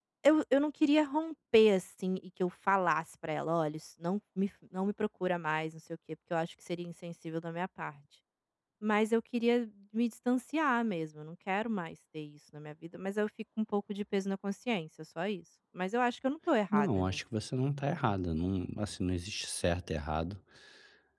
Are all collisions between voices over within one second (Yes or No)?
Yes